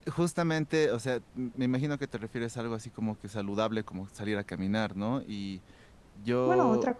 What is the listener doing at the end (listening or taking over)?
taking over